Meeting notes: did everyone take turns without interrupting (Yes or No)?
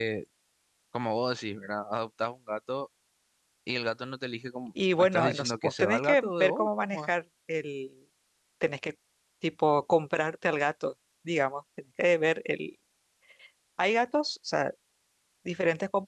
No